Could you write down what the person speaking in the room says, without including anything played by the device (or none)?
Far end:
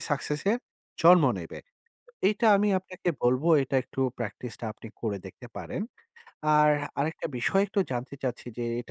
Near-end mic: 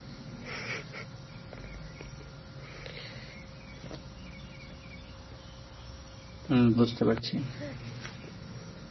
উম বুঝতে পারছি।